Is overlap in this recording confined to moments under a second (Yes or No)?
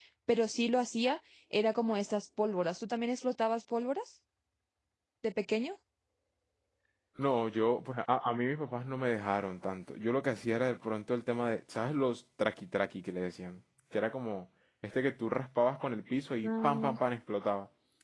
Yes